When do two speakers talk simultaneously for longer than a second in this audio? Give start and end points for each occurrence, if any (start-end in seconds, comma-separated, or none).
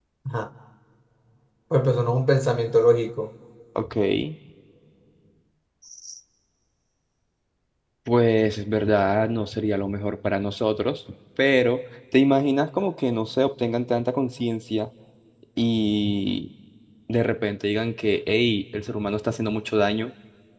none